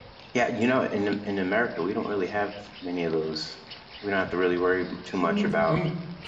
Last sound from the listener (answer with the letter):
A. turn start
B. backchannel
A